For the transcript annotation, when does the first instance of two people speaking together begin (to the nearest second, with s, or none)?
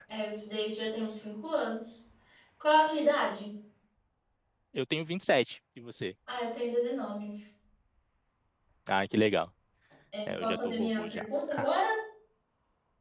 10 s